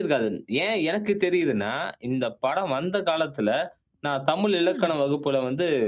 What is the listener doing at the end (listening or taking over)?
listening